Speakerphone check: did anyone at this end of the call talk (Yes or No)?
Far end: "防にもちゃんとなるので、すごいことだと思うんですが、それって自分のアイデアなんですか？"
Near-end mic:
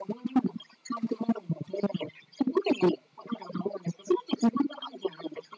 No